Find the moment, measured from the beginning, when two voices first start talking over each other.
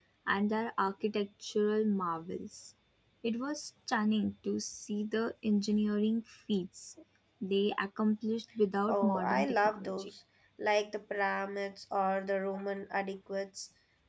8.9 s

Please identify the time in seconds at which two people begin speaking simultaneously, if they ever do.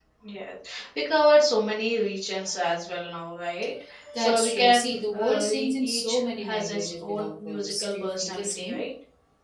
4.1 s

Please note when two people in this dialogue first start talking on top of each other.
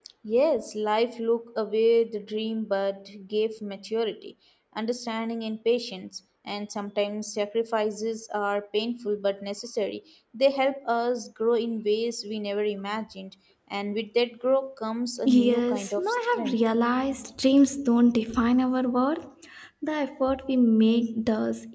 15.2 s

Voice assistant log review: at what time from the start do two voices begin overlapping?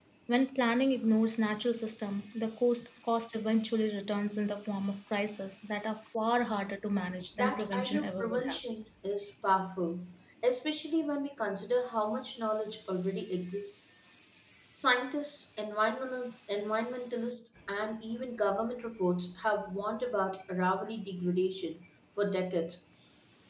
7.4 s

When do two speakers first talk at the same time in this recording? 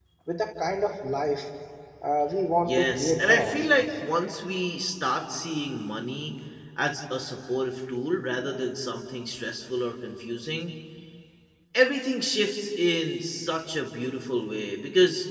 2.6 s

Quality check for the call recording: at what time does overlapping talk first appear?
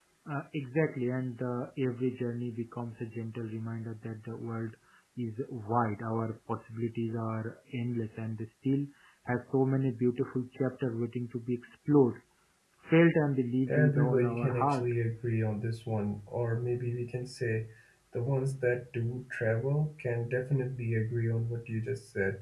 13.7 s

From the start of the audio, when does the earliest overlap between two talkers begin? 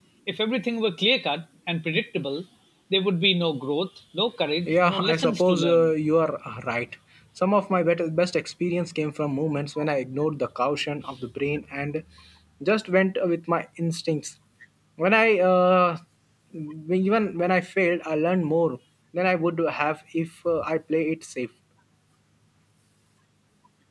4.5 s

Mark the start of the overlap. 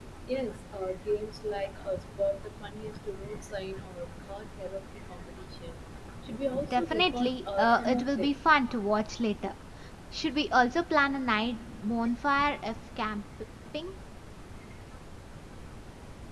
6.7 s

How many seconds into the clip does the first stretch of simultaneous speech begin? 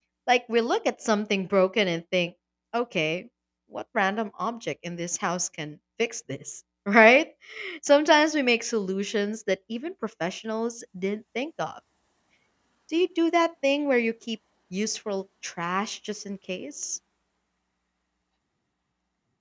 none

